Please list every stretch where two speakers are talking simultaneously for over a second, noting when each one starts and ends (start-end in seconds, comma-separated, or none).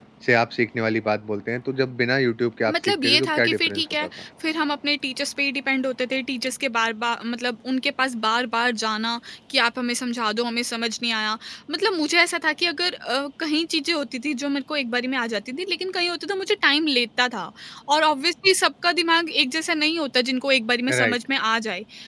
2.7-4.1